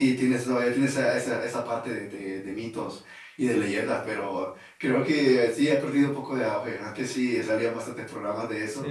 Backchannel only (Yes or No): No